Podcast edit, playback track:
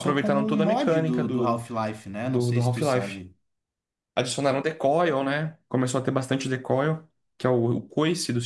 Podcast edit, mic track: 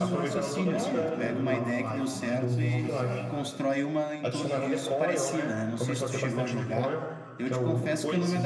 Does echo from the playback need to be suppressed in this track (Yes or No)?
Yes